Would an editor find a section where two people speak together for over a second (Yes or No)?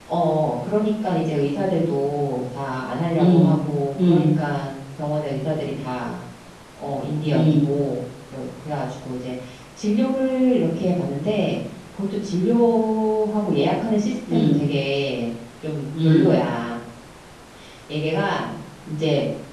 No